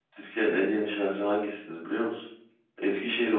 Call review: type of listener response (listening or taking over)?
listening